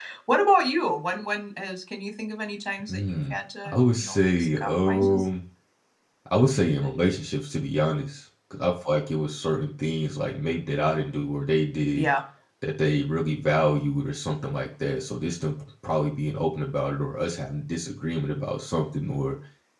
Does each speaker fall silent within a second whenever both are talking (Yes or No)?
No